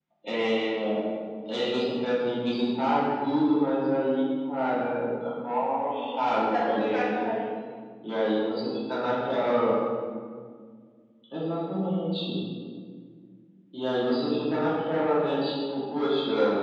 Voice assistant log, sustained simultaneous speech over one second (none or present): present